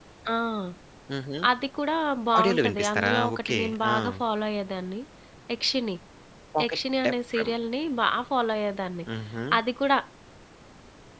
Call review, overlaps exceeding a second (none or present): present